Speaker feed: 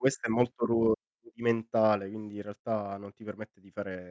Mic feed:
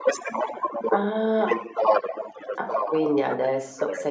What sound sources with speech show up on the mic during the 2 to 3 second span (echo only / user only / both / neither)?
both